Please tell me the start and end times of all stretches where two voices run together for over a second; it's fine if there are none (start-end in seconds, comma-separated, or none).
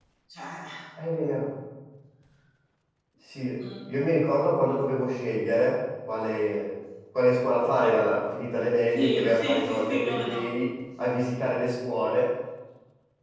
8.9-10.4